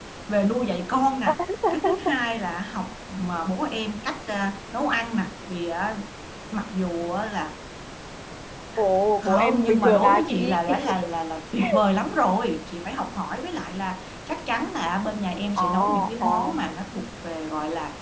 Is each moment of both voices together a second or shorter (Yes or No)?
No